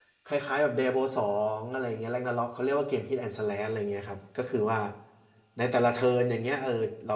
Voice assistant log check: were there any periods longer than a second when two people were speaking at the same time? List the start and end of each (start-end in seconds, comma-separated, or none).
none